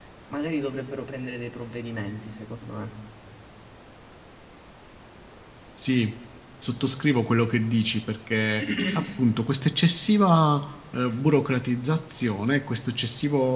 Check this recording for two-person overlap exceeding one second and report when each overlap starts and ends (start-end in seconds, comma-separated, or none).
none